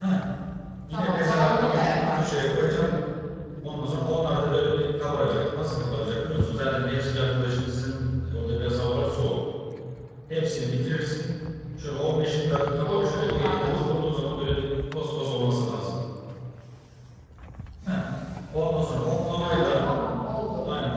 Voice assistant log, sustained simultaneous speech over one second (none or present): present